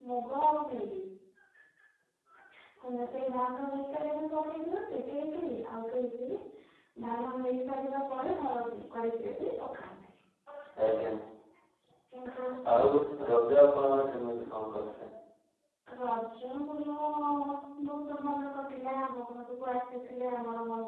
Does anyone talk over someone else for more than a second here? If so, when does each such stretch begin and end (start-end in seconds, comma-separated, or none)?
none